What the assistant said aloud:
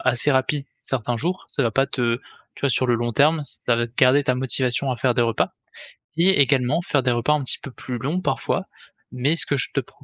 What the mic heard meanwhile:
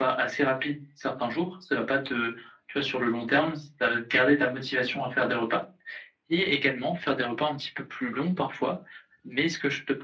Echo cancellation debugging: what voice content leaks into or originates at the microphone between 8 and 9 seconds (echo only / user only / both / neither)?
echo only